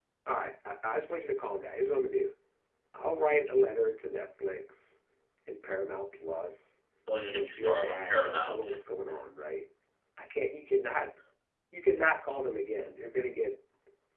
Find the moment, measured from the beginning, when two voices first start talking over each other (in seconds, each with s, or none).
7.3 s